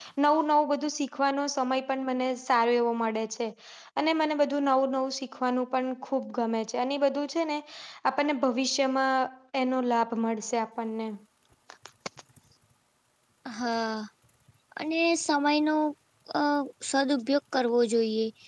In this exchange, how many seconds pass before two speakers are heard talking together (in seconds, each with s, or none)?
none